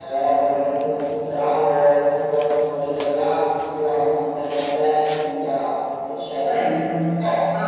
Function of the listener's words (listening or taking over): taking over